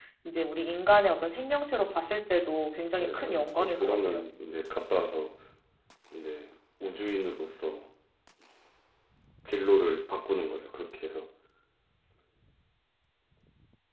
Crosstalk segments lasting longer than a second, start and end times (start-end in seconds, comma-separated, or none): 3.0-4.3